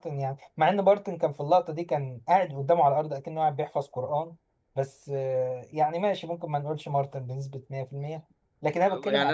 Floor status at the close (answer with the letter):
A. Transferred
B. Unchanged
A